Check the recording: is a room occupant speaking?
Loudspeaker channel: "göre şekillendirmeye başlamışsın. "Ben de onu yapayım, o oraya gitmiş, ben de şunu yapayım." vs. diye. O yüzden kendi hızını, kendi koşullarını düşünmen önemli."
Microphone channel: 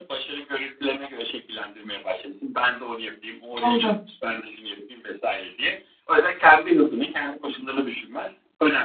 Yes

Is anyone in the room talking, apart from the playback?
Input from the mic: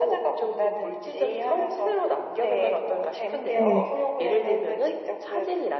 Yes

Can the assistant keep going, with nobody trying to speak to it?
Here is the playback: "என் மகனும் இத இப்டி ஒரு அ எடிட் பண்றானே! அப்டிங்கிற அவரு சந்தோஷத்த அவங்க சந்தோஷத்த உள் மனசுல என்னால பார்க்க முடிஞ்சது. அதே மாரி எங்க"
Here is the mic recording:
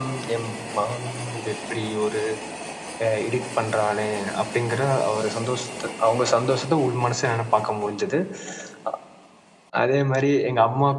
Yes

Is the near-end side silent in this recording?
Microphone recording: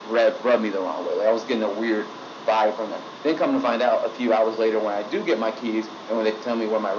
Yes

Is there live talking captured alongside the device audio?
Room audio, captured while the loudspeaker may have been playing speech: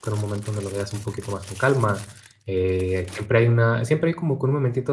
Yes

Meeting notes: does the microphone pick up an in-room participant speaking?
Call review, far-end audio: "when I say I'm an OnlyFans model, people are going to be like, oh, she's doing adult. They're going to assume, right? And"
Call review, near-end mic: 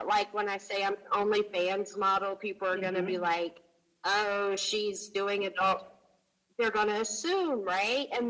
Yes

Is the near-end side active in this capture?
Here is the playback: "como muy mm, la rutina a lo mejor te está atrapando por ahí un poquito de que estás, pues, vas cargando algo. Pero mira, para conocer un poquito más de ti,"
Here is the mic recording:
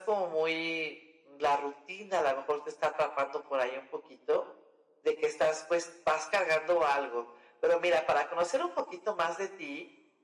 No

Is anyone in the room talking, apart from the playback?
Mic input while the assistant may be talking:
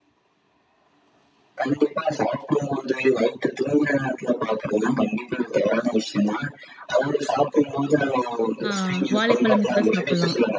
Yes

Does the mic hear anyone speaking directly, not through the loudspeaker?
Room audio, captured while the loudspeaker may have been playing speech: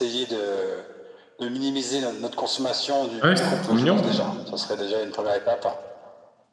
Yes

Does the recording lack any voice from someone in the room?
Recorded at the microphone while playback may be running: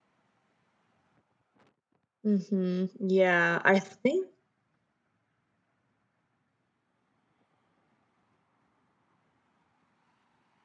No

